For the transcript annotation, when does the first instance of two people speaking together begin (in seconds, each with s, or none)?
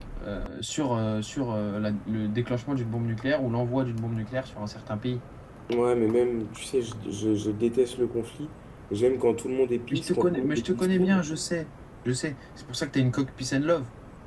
9.9 s